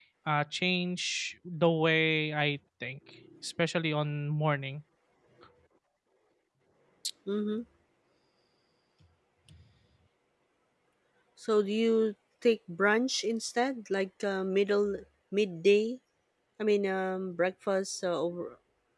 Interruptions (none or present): none